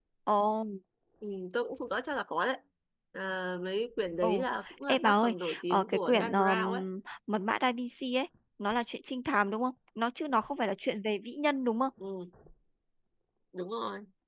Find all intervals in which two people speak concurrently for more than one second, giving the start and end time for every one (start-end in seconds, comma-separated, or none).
4.9-6.6